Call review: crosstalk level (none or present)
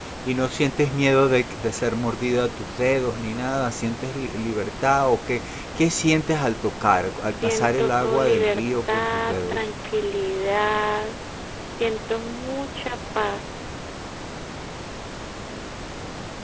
present